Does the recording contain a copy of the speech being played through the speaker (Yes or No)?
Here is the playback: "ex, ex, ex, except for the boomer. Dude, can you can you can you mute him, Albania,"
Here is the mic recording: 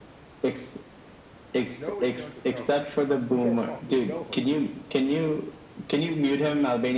Yes